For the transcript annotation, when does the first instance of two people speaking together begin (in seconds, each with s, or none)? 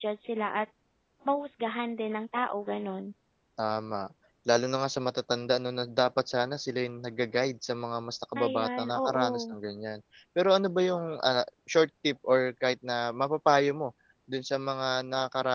8.3 s